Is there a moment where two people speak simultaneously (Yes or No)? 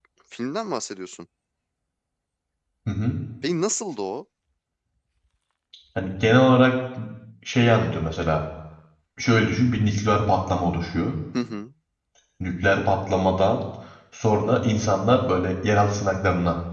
No